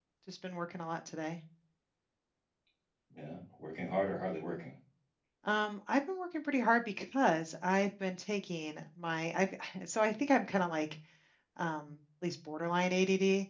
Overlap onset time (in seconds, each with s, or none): none